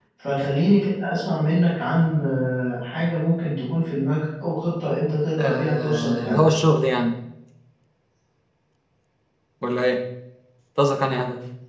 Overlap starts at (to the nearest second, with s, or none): 5 s